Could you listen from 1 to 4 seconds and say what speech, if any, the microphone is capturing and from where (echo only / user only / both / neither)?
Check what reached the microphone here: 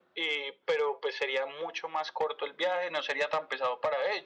echo only